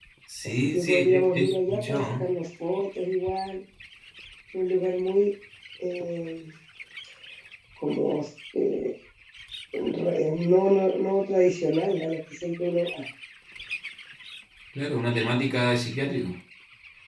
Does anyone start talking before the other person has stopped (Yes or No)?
Yes